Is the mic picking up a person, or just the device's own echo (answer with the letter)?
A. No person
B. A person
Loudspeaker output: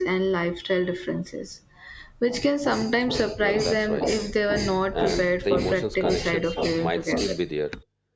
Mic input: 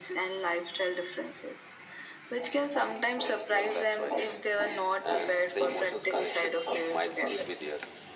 A